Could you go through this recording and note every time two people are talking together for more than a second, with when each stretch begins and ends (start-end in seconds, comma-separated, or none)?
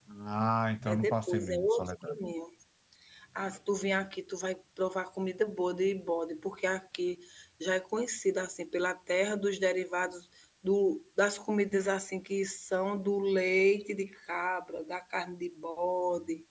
0.8-2.2